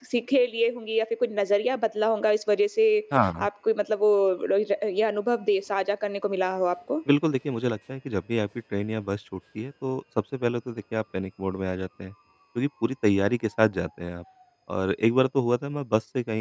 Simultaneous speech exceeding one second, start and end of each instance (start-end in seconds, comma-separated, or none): none